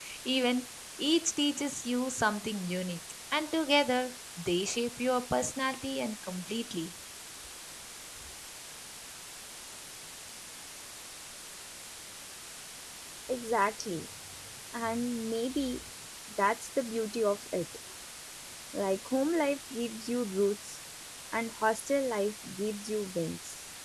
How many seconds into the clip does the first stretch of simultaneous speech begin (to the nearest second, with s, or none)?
none